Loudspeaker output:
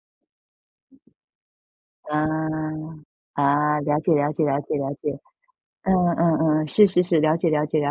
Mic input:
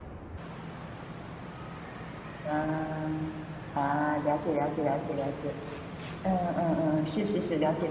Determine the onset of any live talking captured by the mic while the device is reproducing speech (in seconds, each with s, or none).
none